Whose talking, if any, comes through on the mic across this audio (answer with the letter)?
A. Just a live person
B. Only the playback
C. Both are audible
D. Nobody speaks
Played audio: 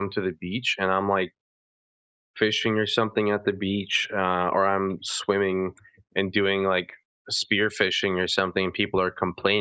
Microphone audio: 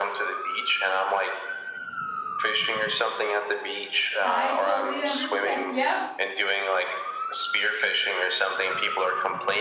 C